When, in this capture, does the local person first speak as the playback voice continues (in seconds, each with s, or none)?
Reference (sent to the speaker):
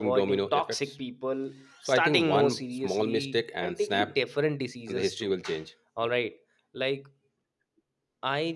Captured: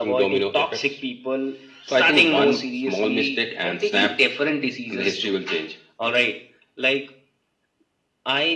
none